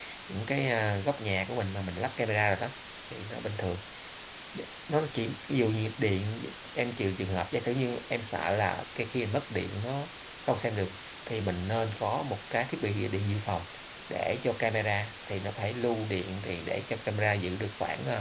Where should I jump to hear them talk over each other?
none

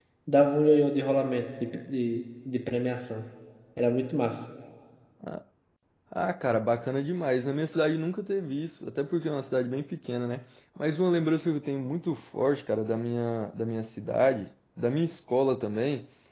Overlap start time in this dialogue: none

